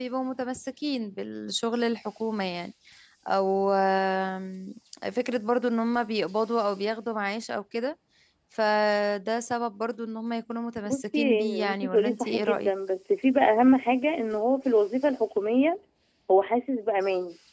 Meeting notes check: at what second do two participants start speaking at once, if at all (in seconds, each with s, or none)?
10.8 s